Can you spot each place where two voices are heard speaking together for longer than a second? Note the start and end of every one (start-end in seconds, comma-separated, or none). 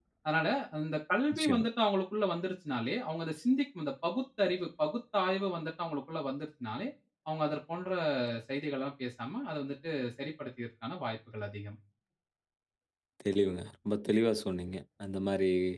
none